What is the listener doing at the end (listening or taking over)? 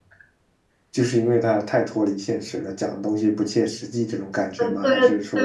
taking over